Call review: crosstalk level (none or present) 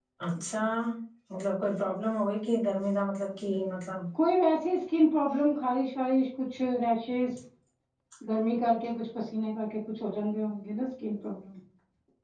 none